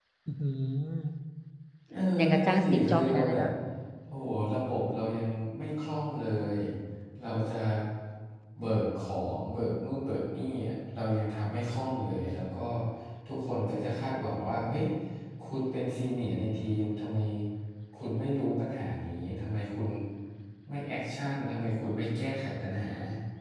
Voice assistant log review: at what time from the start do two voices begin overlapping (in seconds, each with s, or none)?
2.2 s